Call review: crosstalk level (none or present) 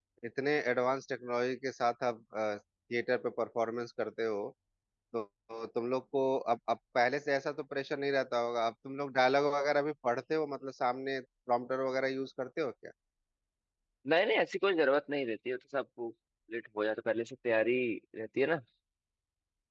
none